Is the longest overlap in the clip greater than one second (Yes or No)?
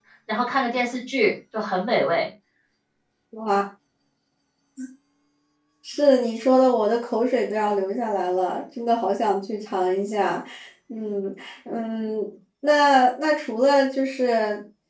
No